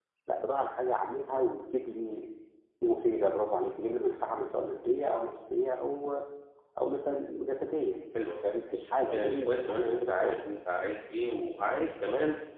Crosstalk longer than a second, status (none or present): present